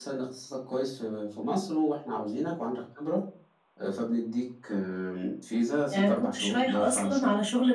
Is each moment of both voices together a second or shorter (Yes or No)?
No